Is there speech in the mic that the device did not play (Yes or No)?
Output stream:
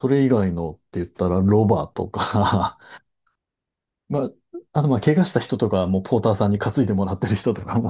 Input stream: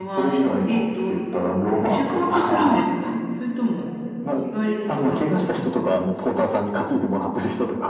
Yes